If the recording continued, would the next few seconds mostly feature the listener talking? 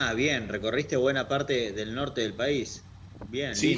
Yes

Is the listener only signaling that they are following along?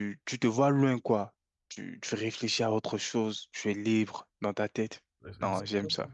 No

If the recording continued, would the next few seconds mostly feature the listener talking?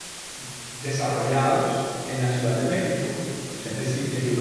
No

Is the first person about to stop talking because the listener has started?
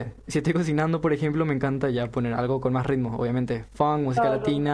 Yes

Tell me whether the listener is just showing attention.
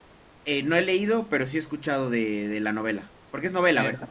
No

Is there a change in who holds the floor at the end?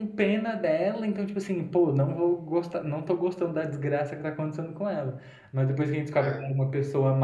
No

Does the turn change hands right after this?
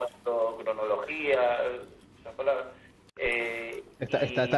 Yes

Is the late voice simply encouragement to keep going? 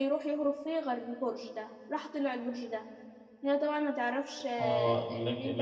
No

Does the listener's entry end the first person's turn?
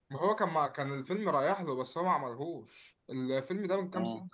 No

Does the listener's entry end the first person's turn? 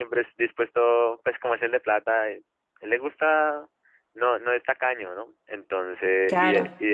No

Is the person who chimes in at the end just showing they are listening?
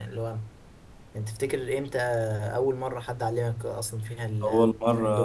No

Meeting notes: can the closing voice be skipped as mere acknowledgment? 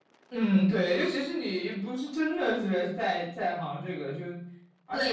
No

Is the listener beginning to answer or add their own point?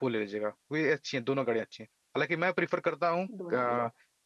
No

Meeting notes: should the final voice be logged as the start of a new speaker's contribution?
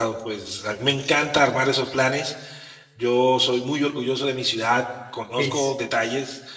No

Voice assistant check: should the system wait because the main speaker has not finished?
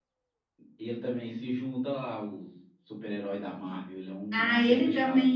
No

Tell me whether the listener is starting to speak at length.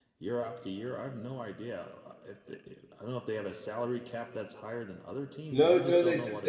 Yes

